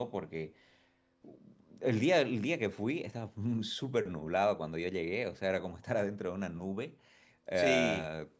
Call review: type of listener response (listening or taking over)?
listening